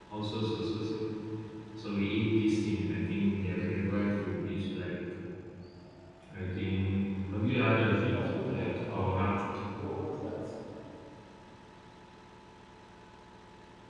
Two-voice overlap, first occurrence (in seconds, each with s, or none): 8.0 s